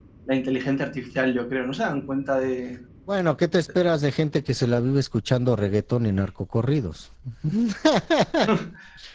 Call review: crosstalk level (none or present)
none